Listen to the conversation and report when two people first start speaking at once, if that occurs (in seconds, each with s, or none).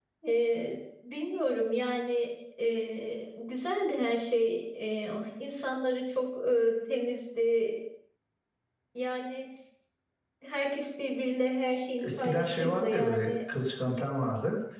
12.0 s